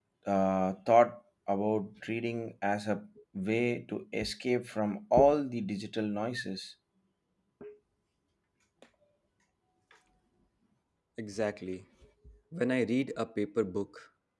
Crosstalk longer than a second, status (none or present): none